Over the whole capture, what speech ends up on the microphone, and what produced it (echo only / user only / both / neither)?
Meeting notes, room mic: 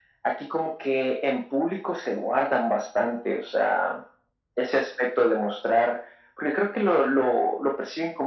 echo only